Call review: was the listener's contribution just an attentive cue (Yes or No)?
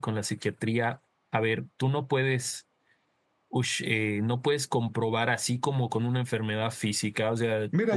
No